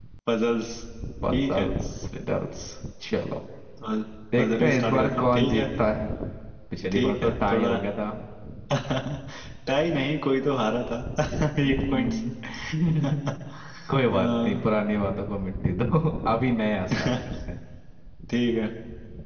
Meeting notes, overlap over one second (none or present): present